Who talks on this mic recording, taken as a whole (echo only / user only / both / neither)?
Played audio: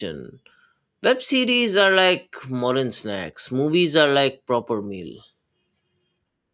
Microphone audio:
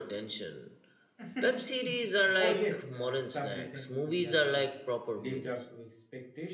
both